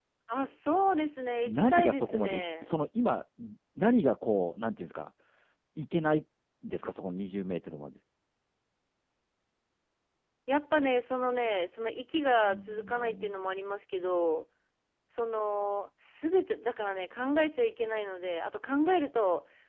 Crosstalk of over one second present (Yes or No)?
Yes